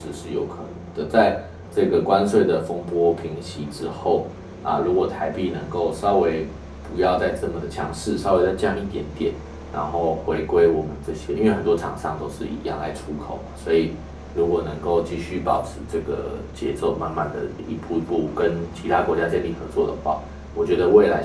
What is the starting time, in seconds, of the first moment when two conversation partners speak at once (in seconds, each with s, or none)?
none